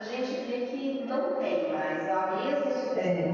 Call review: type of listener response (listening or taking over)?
listening